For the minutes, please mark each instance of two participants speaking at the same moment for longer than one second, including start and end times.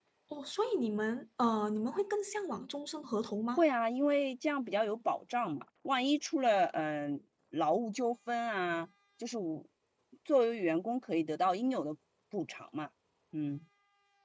none

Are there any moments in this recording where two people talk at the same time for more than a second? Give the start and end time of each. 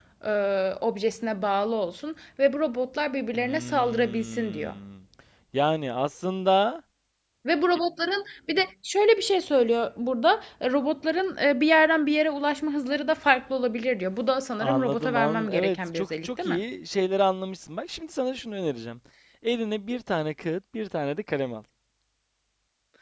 3.4-4.8, 14.6-16.6

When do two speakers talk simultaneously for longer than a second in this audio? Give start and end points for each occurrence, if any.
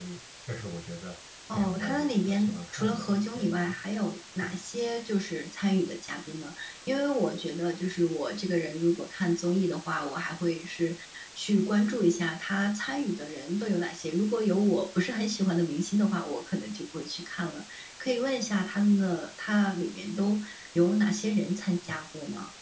1.5-3.8

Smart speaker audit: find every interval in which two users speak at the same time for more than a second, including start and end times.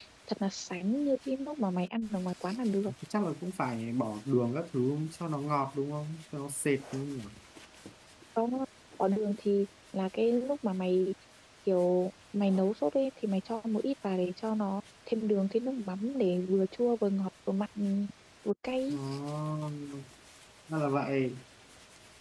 none

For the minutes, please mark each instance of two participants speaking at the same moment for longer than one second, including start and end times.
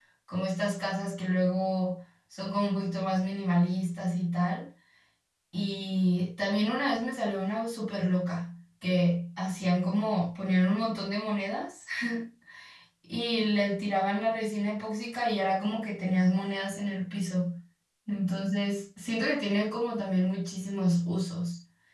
none

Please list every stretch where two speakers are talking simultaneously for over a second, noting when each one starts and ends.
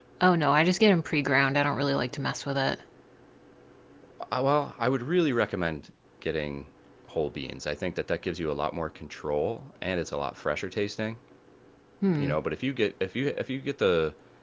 none

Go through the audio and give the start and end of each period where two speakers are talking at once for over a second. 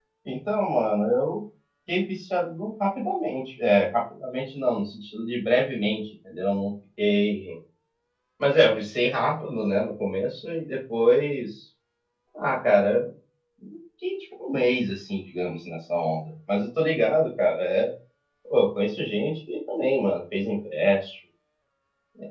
none

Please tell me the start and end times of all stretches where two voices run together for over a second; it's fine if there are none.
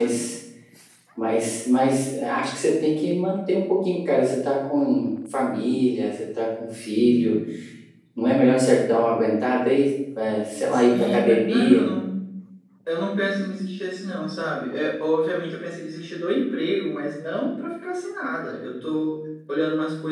10.7-11.9

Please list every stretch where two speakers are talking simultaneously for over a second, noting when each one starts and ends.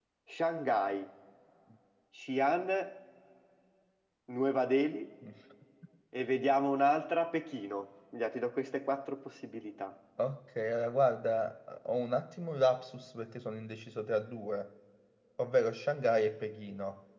none

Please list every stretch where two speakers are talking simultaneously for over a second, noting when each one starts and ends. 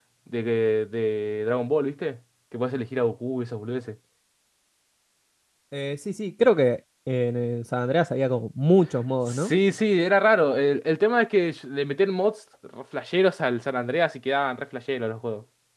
none

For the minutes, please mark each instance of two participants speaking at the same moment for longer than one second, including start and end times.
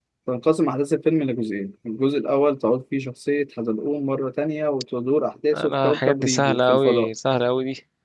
5.5-7.1

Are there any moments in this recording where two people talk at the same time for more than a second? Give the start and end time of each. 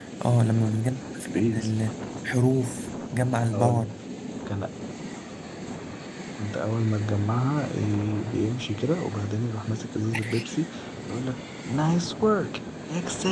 none

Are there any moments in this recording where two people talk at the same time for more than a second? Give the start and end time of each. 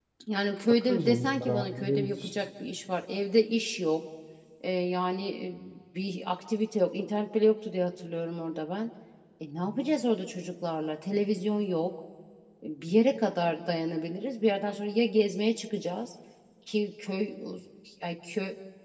0.9-2.3

